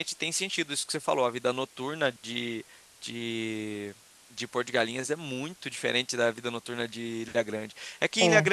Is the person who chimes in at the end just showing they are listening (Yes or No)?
Yes